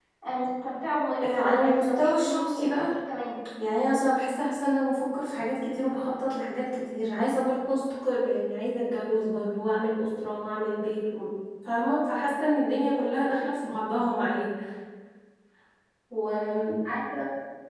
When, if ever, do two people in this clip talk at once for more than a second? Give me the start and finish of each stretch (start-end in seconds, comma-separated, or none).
1.2-2.9